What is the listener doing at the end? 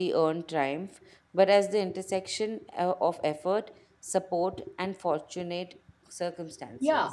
taking over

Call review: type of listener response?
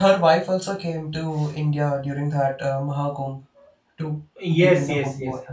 taking over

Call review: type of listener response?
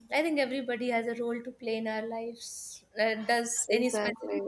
listening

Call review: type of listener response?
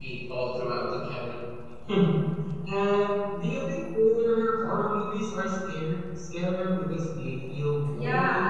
taking over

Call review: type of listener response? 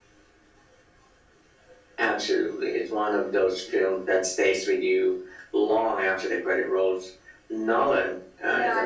taking over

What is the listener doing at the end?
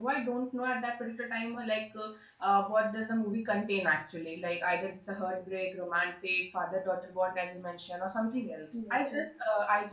listening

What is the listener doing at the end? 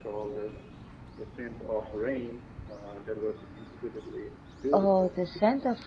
taking over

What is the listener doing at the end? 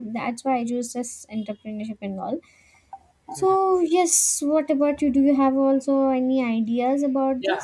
taking over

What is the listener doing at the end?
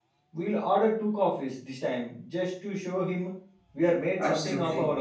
taking over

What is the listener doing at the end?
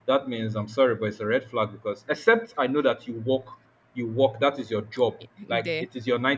listening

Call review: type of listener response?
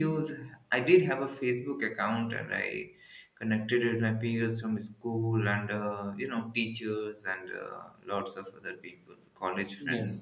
taking over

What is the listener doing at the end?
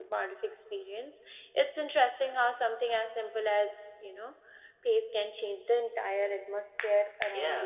taking over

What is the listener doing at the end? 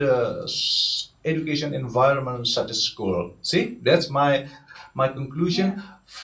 listening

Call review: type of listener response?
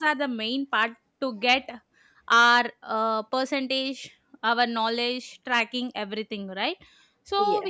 listening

